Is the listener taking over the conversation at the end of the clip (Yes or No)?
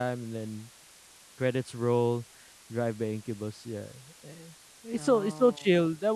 No